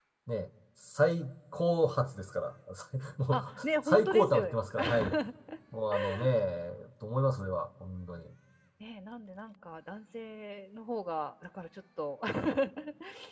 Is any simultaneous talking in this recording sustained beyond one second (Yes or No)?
Yes